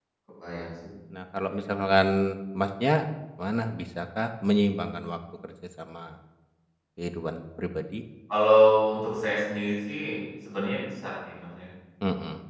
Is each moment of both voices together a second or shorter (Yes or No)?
Yes